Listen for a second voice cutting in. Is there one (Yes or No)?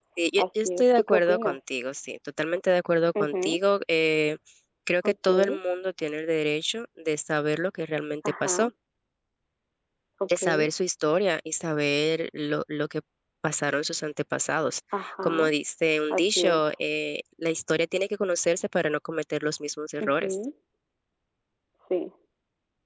Yes